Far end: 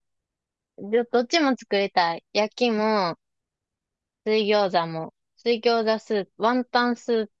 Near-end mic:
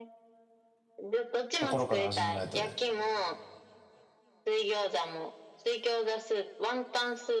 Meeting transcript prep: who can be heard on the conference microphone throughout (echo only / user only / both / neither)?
both